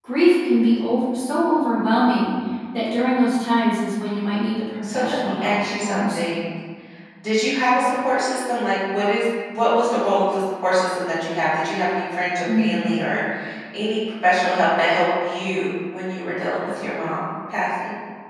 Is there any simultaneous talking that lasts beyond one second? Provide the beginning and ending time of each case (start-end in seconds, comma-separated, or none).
4.9-6.2